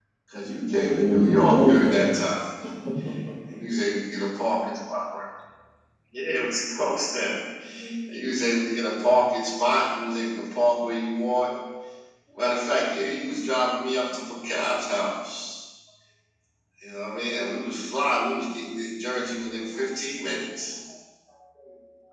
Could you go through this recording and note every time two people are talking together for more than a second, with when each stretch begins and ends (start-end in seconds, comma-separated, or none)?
0.7-2.2